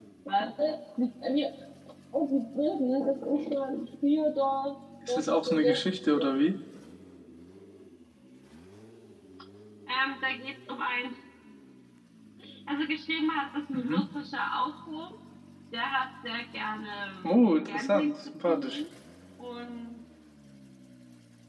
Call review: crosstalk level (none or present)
present